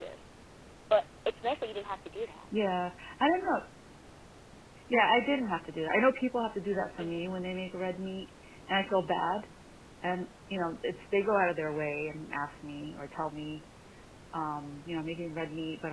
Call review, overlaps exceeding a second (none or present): none